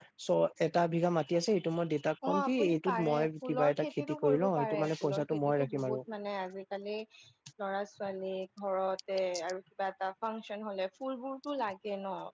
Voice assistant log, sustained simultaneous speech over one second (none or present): present